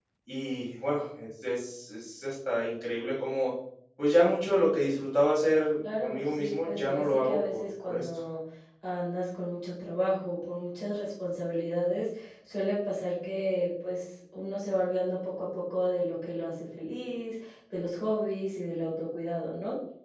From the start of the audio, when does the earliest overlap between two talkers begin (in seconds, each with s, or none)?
5.8 s